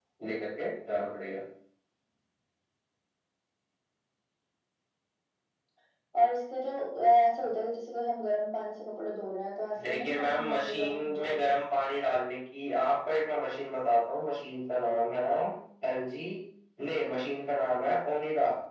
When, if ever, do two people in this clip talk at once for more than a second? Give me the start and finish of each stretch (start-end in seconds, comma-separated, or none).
9.8-11.5